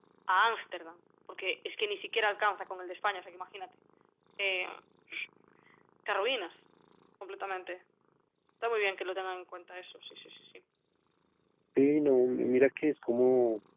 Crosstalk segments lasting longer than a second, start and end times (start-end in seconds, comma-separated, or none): none